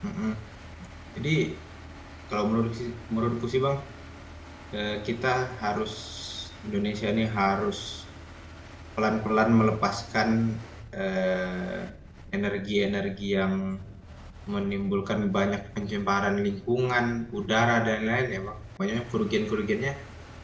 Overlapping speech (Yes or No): No